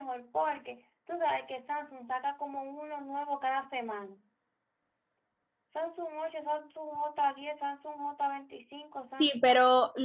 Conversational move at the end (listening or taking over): taking over